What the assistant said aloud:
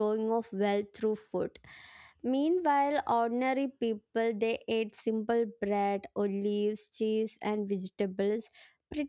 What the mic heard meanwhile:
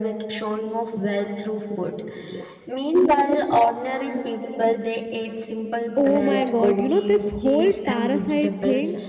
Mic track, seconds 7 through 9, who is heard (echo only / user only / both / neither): both